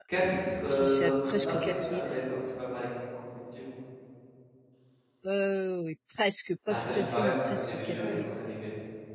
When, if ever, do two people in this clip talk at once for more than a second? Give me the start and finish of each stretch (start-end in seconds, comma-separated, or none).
0.7-2.3, 6.7-8.2